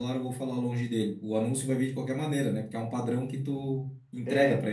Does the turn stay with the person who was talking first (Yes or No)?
No